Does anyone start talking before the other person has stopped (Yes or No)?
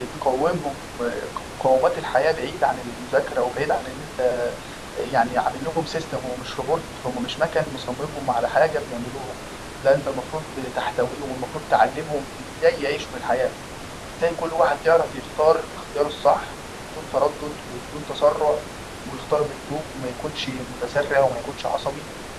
No